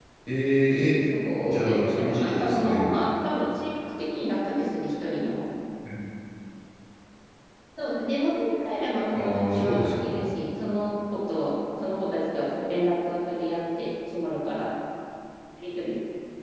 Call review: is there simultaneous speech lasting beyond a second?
Yes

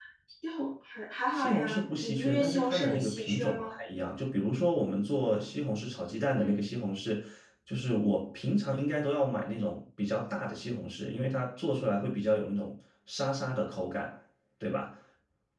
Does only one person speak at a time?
No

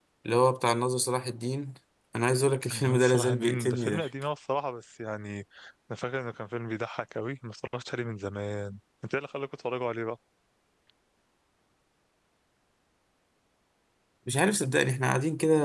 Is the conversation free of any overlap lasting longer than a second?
No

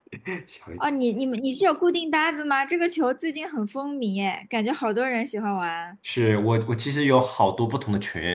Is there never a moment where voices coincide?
Yes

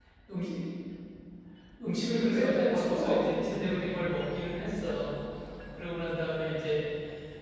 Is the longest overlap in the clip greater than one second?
Yes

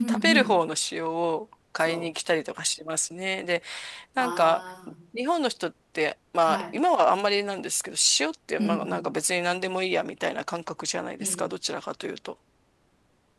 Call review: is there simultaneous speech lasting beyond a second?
No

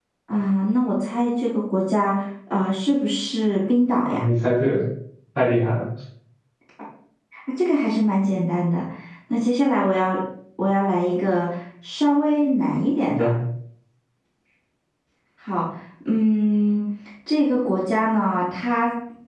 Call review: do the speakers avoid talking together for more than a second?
Yes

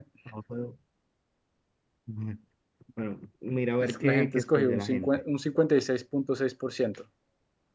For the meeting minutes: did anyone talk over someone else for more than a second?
Yes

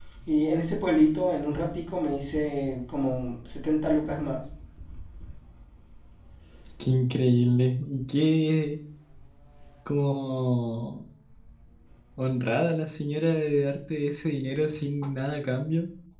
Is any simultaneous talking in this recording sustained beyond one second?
No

